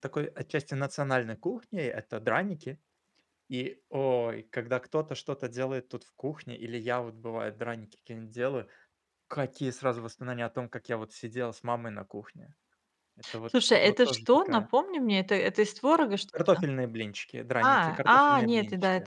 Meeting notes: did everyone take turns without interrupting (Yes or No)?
No